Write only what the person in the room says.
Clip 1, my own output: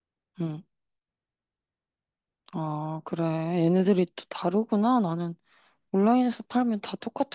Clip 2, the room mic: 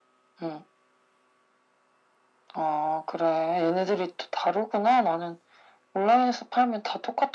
none

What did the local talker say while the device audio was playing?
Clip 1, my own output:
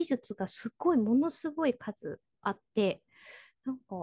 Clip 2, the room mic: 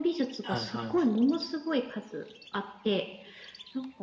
はいは

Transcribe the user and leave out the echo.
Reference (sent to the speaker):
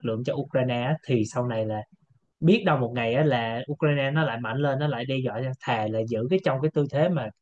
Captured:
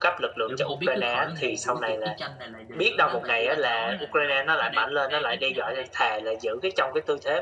em cũng không biết cái khởi nguồn của cái cuộc chiến tranh này là gì nữa nếu mà như anh nói là nó nó đã gây hấn với nhau thì

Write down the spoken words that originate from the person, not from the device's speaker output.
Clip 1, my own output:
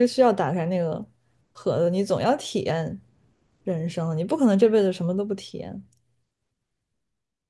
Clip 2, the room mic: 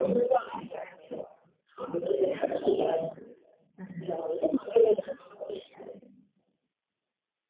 none

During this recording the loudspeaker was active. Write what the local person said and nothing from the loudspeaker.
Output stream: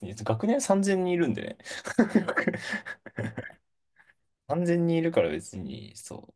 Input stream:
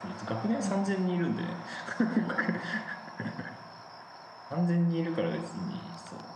うん。

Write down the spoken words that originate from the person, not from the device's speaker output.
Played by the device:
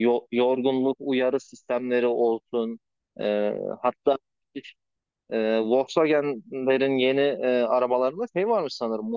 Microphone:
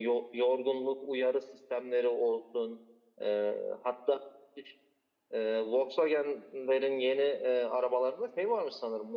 none

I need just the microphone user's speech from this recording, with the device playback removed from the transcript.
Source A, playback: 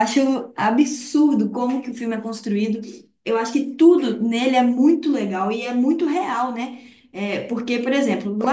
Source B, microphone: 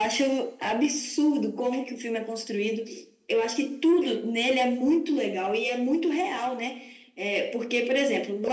none

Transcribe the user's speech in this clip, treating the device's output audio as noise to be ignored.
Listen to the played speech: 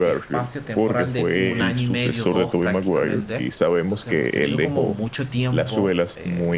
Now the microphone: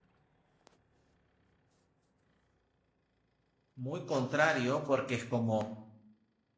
muy contrario, porque es como

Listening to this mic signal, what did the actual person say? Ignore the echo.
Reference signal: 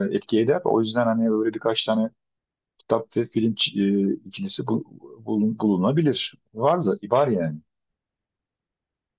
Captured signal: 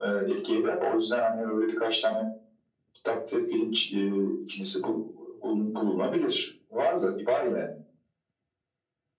none

